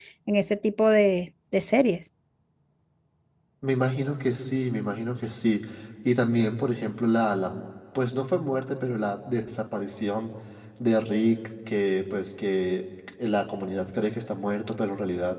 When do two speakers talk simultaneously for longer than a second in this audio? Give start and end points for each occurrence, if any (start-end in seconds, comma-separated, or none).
none